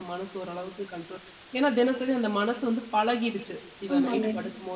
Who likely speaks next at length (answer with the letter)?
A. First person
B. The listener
A